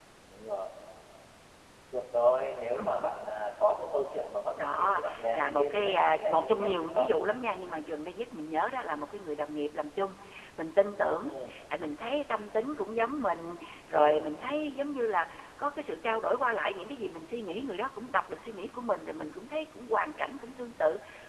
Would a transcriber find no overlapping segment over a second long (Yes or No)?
No